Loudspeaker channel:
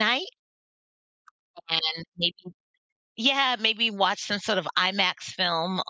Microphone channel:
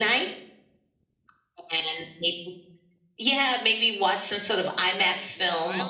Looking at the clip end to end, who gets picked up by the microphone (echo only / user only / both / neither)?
both